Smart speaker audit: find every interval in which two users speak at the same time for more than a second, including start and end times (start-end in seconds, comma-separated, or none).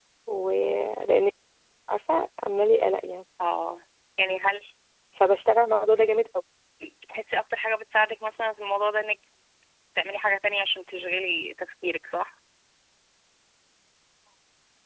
none